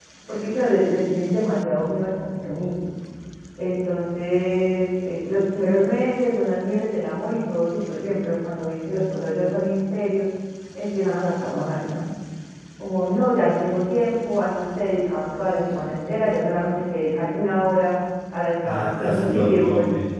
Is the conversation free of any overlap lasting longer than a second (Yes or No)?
No